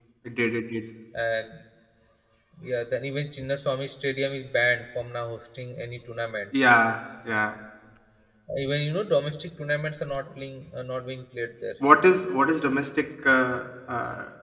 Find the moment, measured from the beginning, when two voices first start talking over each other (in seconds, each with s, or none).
none